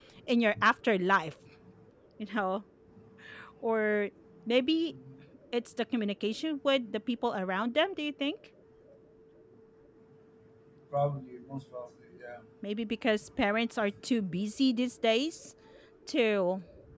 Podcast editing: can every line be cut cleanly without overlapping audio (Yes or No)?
Yes